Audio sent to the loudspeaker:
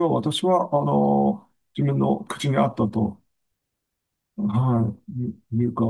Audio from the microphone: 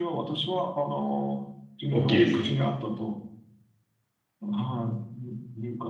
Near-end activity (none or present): present